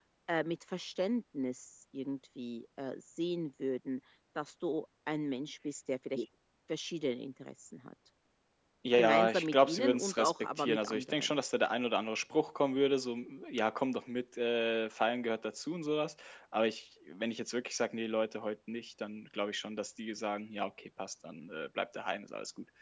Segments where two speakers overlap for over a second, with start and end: 9.0-11.4

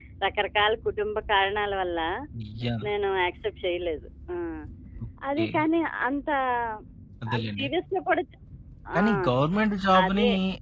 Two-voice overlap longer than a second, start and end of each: none

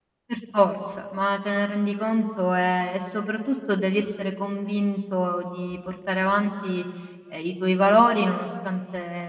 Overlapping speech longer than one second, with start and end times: none

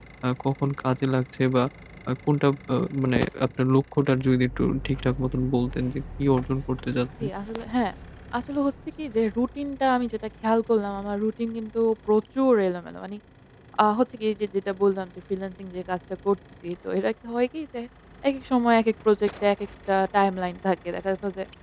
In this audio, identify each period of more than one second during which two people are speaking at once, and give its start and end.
none

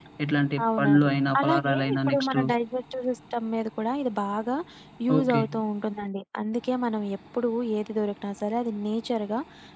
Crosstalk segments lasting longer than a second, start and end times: 0.8-2.4

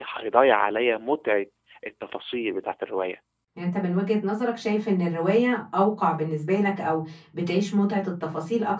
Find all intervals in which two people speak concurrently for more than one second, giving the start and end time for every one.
none

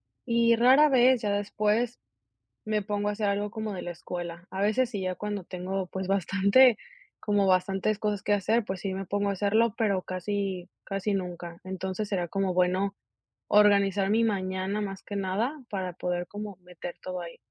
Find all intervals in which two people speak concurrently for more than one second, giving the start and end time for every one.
none

